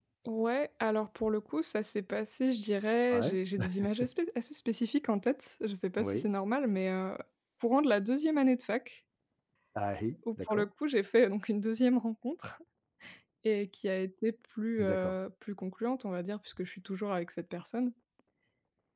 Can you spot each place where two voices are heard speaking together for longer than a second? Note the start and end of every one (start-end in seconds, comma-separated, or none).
none